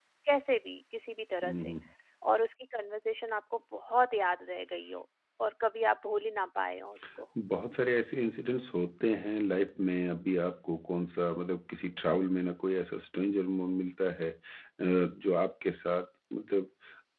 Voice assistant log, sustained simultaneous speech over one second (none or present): none